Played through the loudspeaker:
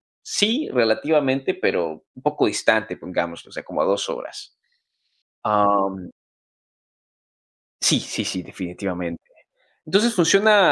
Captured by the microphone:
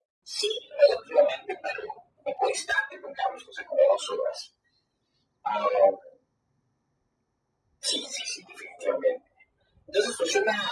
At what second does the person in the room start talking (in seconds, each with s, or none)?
none